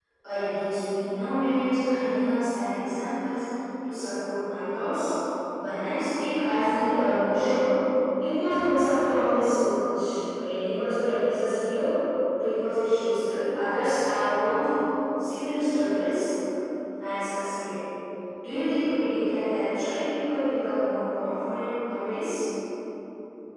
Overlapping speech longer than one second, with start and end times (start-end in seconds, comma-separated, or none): none